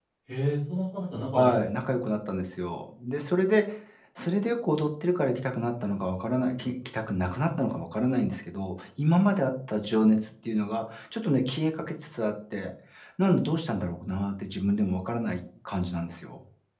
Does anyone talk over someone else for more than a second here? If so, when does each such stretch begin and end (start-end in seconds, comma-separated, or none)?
none